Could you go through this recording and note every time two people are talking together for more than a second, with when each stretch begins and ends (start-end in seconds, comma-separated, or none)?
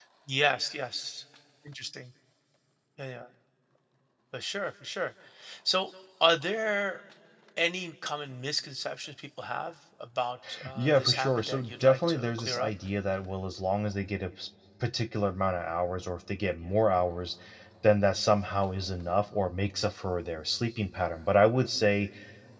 10.7-12.7